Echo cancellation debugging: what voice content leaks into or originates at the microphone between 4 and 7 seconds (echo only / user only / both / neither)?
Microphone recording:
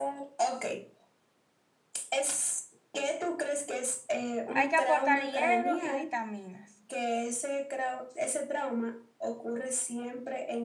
both